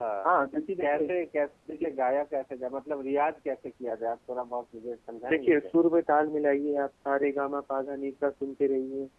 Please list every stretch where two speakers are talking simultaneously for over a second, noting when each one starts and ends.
none

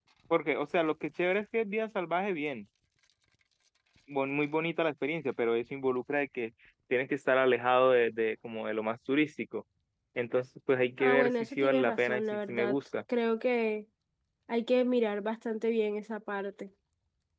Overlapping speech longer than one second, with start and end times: 11.0-12.8

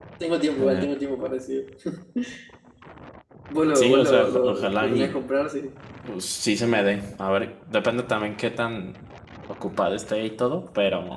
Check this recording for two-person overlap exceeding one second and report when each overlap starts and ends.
3.7-5.2

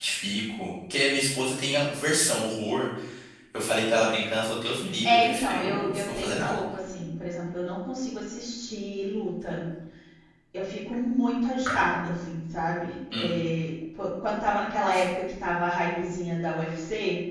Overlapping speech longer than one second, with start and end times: 5.0-6.6

